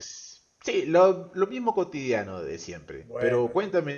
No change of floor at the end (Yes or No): Yes